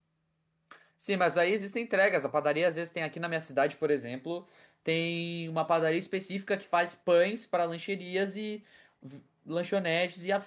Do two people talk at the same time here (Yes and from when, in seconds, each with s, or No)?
No